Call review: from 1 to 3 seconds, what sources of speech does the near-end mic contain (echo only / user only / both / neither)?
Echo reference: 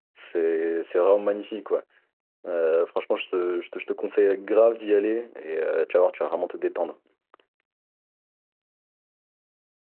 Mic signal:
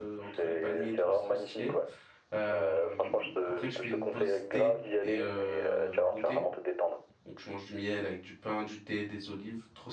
both